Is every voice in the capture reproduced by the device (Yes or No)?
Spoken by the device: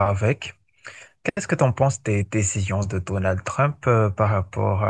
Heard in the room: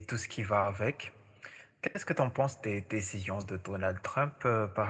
Yes